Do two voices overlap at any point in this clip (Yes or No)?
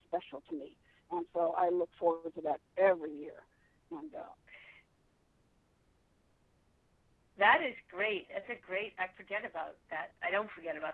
No